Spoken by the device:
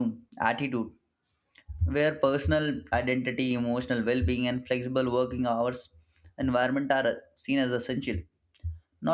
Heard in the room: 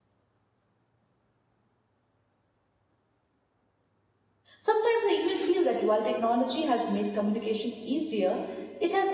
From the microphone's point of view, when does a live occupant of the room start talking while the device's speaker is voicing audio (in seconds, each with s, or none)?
4.6 s